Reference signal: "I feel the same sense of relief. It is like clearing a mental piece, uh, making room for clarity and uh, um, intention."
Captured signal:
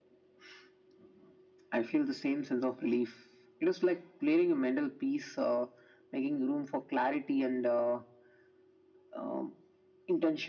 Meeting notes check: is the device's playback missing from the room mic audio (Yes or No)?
No